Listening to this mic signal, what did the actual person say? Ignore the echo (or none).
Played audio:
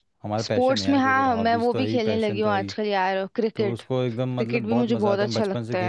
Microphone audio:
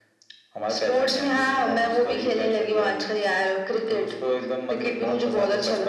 none